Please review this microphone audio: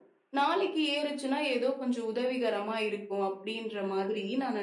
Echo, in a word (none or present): present